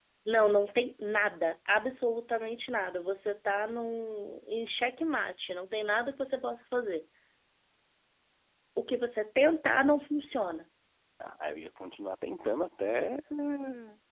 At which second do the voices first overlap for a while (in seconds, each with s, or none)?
none